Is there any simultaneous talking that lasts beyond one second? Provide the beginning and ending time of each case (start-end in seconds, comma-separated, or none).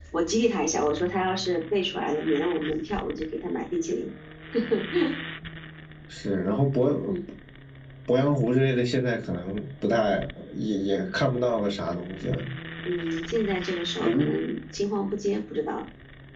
none